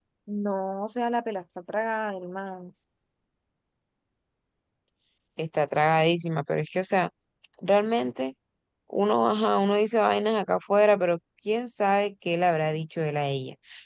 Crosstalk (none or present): none